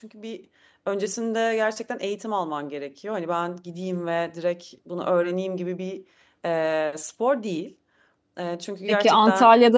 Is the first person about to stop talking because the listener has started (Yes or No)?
Yes